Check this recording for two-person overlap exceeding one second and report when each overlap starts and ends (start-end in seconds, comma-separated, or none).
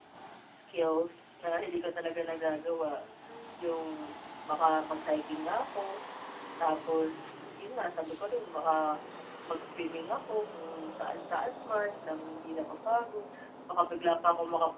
none